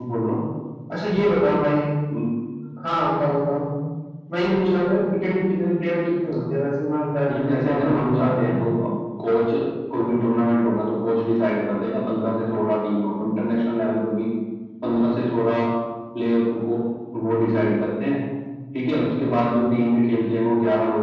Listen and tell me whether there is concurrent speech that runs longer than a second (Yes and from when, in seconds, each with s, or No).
Yes, from 7.3 s